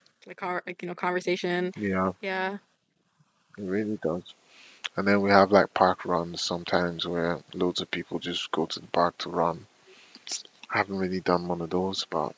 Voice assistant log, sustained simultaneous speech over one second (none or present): none